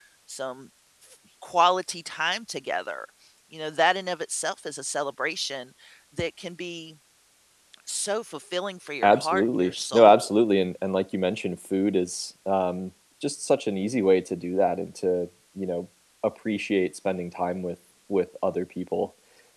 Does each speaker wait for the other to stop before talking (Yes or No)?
No